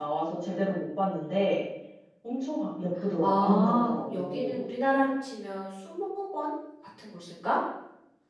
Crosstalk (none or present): present